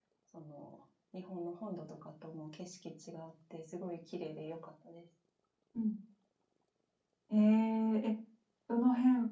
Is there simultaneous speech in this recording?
No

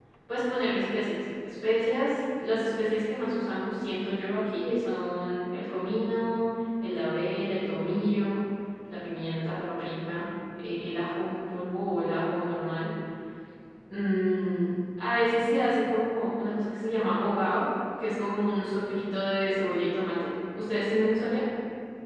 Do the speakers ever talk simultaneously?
No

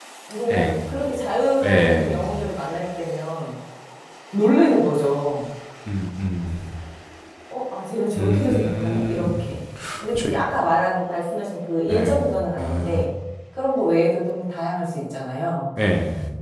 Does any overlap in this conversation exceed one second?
Yes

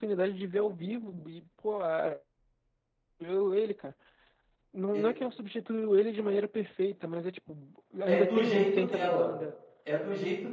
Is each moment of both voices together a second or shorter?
No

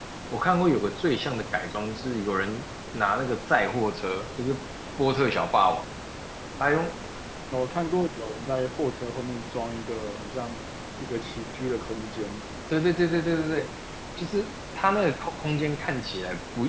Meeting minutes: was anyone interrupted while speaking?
No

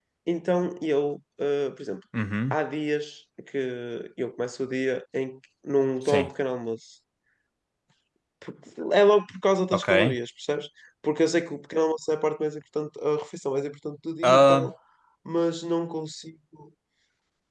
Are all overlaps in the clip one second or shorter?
Yes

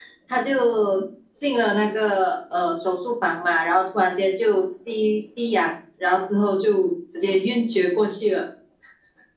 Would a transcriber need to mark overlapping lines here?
No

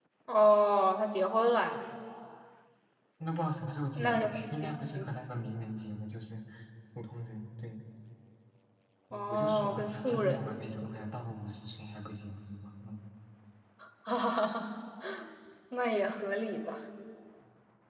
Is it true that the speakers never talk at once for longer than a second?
No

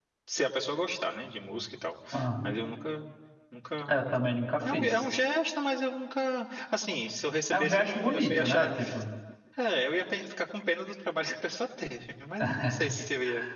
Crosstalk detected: Yes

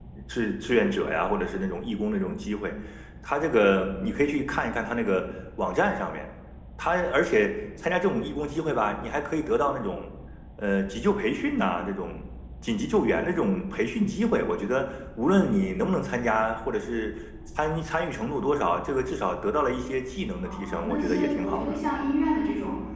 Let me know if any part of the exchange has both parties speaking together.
Yes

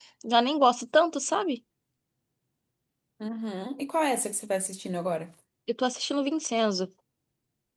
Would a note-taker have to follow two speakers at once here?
No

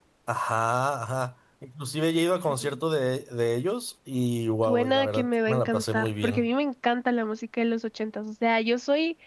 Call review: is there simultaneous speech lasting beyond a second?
Yes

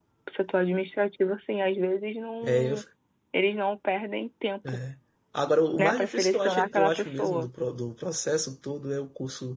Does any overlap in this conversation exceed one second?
Yes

